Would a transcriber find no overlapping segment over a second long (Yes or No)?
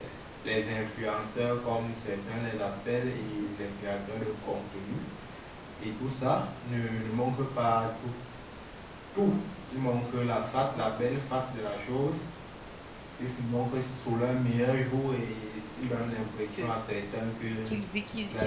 Yes